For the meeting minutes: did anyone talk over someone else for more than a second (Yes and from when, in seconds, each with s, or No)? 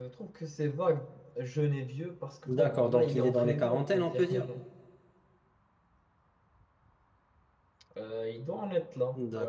Yes, from 2.5 s